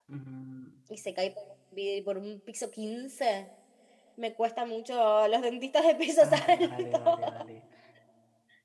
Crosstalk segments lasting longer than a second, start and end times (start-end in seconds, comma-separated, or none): 6.2-7.4